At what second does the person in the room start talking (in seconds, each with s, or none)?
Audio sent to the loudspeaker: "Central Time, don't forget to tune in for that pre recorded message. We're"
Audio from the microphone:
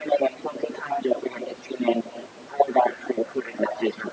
none